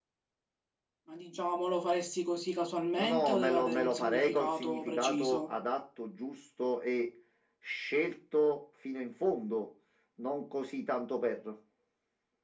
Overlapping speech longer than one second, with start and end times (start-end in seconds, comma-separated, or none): 3.0-5.5